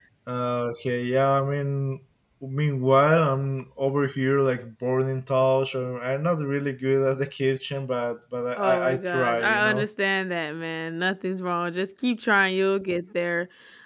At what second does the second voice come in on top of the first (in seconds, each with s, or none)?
8.6 s